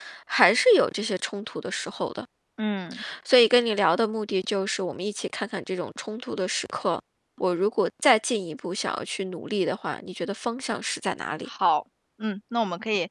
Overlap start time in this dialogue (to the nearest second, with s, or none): none